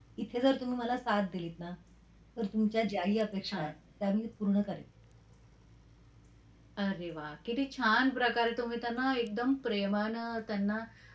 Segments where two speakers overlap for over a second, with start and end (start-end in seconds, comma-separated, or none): none